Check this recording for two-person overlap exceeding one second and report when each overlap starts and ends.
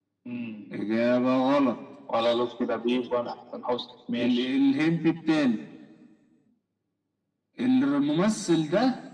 none

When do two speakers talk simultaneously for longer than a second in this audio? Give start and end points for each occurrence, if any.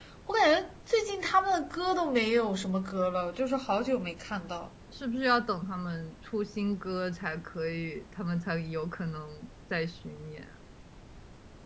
none

